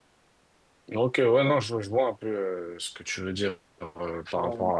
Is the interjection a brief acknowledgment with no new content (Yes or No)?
Yes